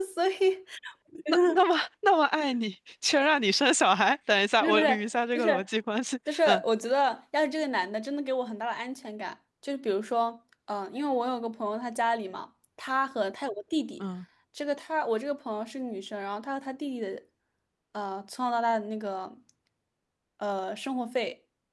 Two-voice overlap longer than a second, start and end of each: none

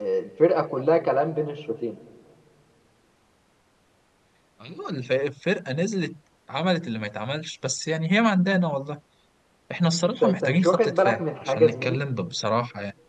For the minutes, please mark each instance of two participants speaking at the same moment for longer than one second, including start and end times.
10.1-12.0

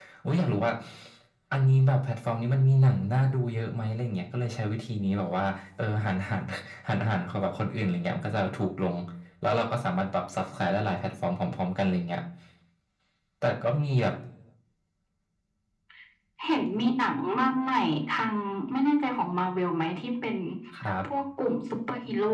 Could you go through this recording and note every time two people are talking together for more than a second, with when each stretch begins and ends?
none

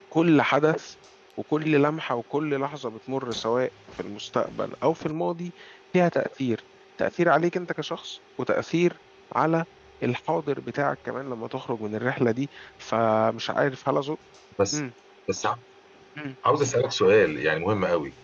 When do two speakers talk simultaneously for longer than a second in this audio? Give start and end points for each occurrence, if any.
none

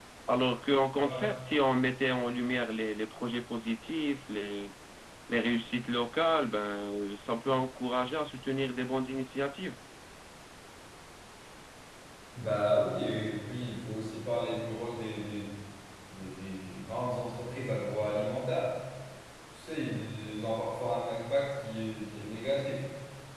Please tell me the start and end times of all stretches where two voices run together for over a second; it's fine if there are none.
none

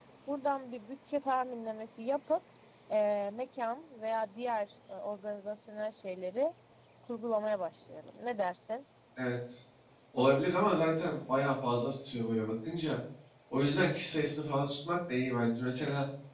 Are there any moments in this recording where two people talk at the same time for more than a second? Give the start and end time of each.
none

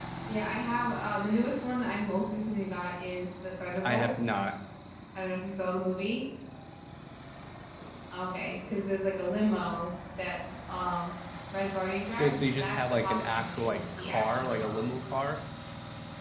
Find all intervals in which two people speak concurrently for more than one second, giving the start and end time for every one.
12.2-14.8

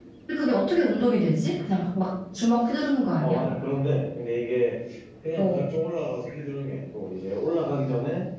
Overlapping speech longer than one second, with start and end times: none

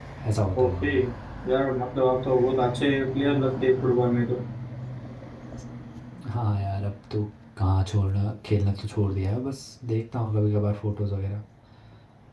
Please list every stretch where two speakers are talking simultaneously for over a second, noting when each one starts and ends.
none

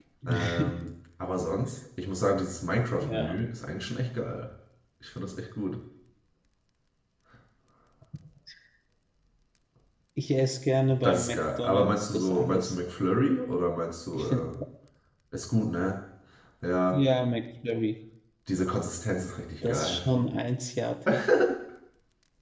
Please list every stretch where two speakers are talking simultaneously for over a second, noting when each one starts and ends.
11.0-12.8

